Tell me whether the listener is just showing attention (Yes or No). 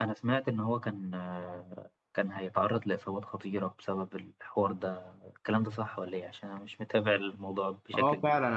No